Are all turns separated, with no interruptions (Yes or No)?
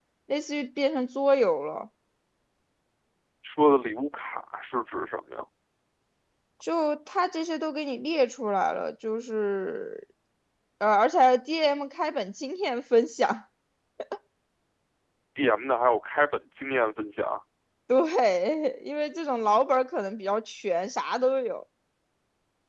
Yes